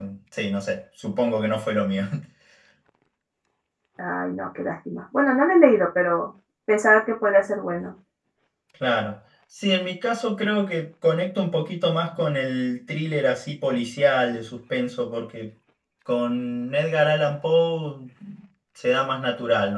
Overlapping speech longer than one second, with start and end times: none

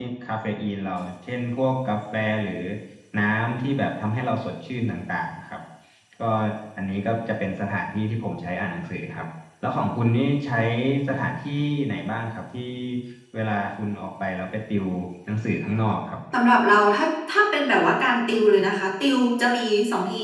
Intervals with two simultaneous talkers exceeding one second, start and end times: none

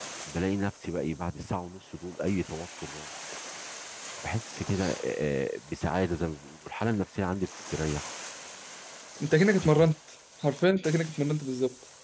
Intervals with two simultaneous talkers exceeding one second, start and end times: none

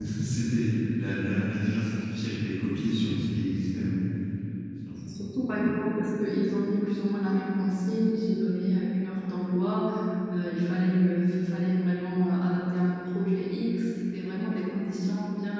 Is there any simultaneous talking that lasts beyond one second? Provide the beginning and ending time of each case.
none

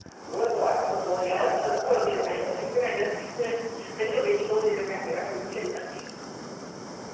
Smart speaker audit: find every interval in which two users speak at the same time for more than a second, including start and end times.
1.2-2.6

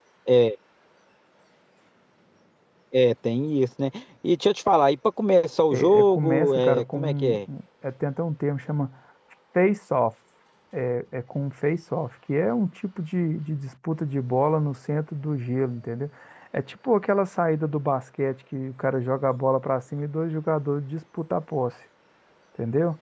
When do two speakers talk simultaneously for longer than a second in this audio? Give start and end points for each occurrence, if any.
5.7-7.4

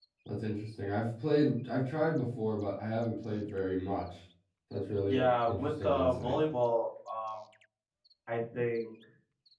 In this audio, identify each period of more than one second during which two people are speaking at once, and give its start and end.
5.0-6.4

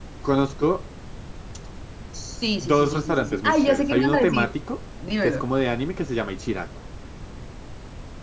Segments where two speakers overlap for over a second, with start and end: 2.6-4.5

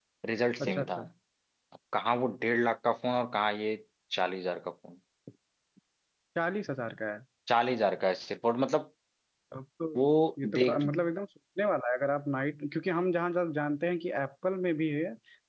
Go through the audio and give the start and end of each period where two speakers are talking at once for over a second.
none

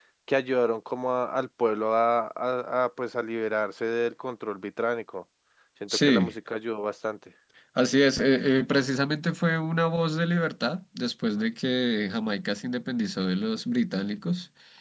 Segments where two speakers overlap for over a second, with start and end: none

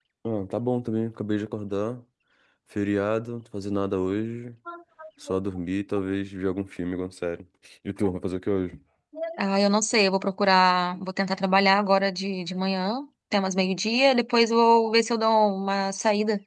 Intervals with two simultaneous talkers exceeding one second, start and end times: none

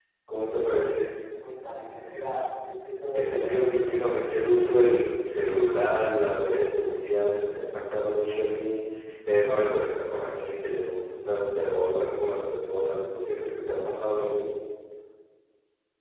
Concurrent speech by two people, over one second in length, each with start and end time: none

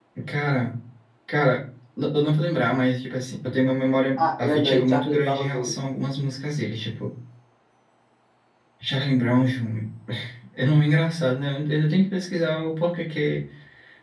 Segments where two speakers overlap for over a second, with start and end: 4.2-5.7

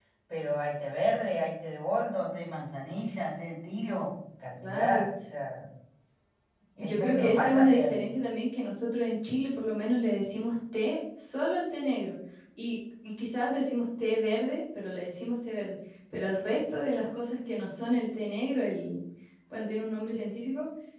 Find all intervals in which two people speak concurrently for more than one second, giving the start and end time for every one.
6.8-8.0

